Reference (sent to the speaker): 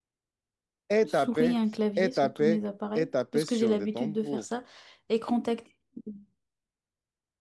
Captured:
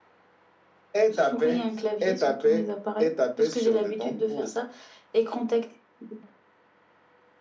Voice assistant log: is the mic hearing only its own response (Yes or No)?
Yes